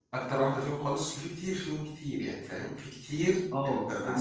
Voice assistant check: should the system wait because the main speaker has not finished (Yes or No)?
No